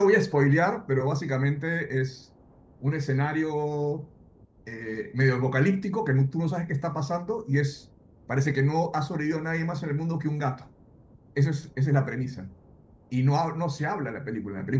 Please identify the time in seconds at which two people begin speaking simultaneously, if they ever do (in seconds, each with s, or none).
none